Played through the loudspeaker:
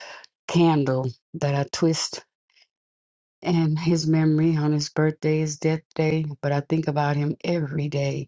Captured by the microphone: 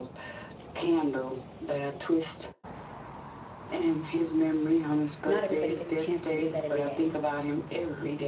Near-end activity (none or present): present